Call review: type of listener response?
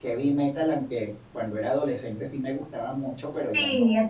taking over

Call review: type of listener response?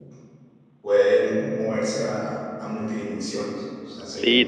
taking over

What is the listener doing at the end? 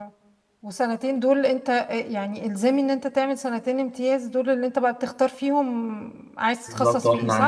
taking over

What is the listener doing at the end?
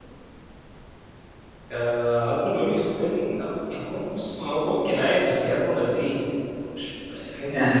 taking over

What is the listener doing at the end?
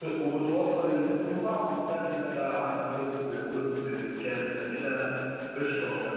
taking over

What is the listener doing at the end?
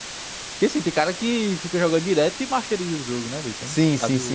taking over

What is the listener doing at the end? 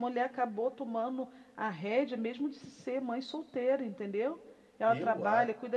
listening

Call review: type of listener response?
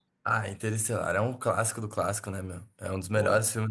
listening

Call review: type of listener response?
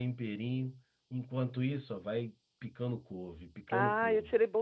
taking over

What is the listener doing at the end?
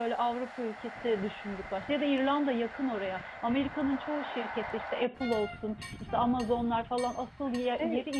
taking over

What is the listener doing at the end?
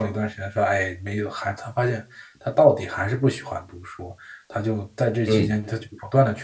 listening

